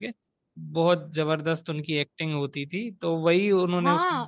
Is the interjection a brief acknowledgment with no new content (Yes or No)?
No